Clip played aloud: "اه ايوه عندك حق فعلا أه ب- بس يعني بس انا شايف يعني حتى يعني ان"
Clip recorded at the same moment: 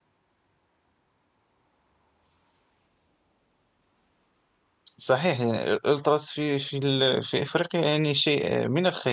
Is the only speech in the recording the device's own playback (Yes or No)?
No